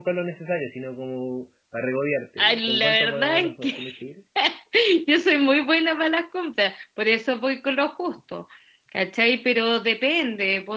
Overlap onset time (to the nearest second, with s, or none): 2 s